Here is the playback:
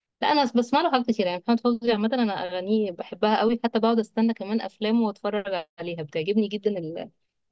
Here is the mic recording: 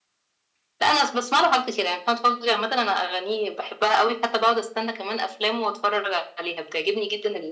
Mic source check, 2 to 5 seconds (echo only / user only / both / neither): echo only